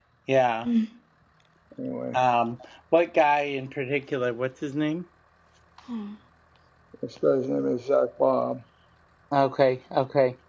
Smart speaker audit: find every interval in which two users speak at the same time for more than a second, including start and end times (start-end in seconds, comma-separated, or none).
none